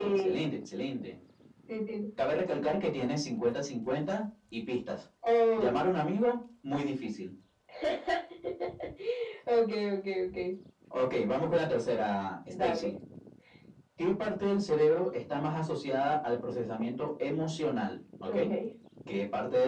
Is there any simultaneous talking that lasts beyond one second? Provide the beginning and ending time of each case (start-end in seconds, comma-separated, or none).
none